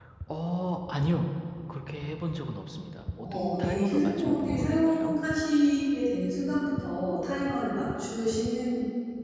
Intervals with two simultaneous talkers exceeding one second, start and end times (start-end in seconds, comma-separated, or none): 3.2-5.2